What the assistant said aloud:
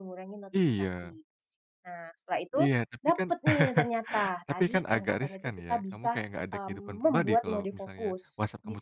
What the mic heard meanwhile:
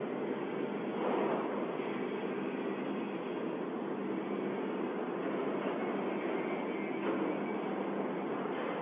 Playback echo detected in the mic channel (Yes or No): No